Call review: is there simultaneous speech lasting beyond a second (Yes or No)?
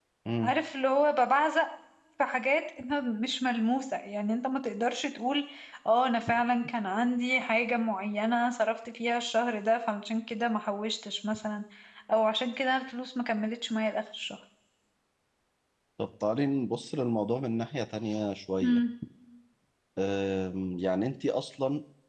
No